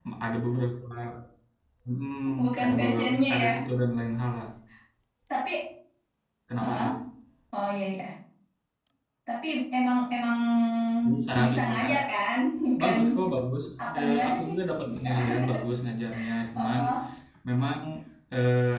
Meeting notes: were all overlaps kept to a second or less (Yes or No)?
No